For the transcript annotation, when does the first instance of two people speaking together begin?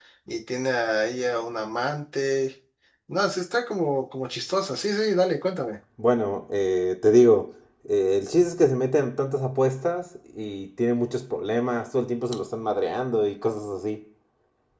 none

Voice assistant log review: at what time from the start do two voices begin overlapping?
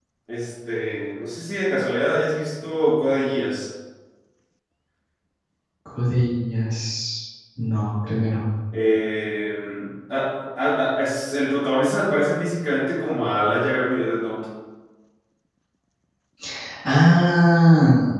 none

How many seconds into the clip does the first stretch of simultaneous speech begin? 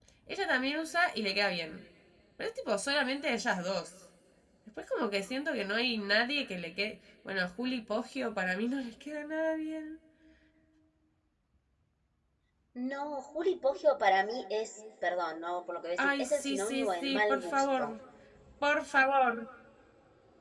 16 s

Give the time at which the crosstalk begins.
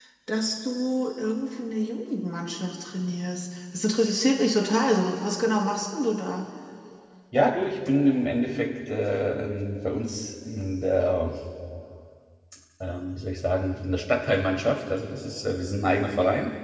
none

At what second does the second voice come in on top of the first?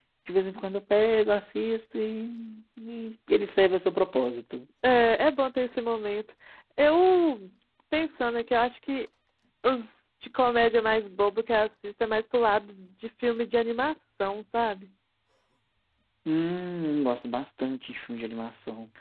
none

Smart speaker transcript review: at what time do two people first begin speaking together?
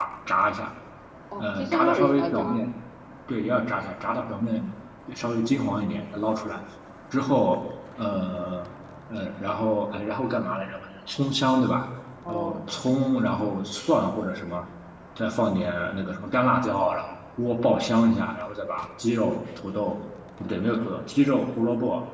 1 s

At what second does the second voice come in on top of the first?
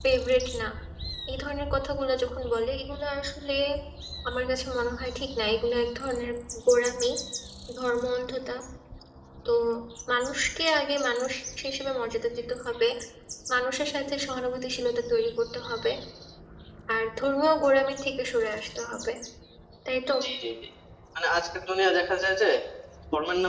none

